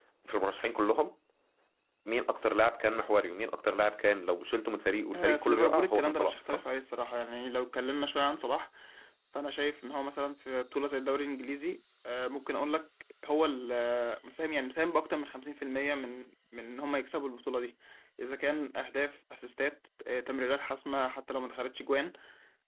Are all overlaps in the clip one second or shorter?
No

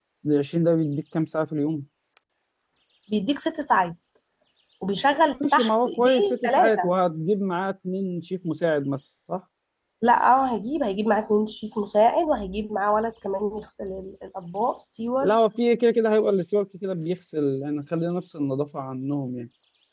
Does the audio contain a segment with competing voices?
Yes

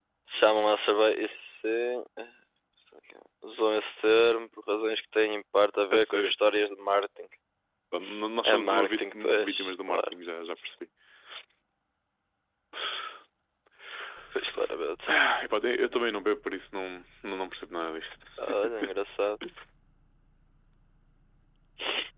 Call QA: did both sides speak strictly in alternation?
No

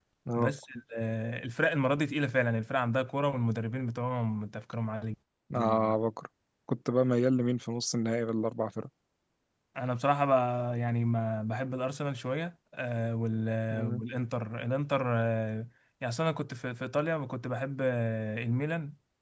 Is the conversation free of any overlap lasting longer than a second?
Yes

